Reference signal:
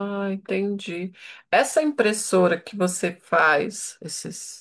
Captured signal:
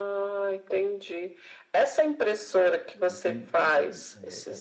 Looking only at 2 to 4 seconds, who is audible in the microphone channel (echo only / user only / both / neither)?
both